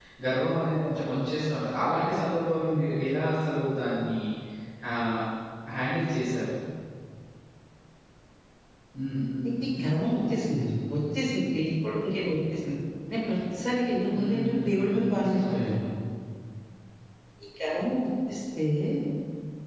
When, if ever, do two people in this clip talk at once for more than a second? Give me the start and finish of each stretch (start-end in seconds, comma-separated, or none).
14.1-15.6